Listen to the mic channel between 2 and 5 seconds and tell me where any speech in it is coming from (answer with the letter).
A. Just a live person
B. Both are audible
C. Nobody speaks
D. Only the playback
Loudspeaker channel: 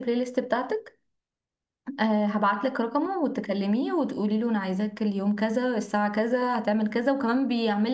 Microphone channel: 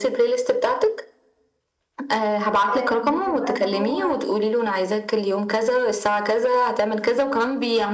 B